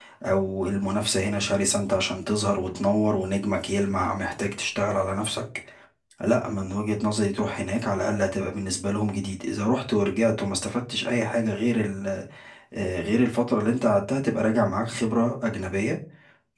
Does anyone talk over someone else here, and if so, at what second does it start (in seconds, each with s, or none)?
none